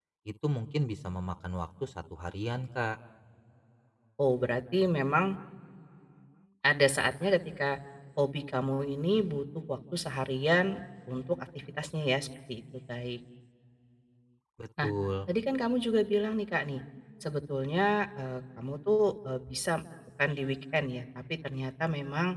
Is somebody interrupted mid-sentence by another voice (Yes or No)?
No